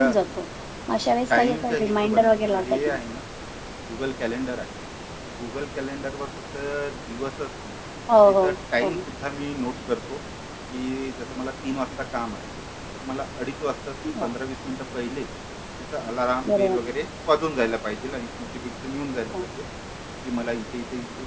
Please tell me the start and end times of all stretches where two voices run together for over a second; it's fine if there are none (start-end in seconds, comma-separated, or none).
1.3-3.0